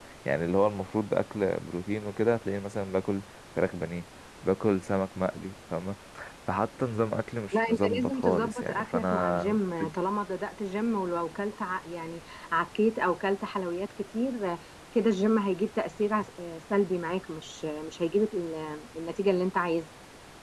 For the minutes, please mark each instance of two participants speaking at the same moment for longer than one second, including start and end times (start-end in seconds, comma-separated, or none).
7.5-9.5